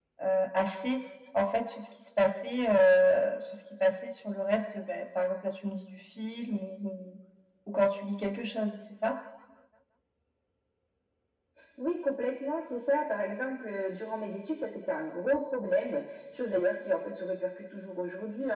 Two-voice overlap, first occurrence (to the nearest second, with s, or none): none